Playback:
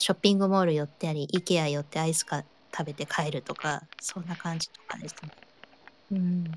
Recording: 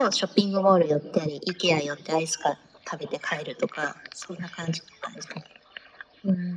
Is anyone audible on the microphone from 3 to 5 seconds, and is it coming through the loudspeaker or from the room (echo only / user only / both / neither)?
echo only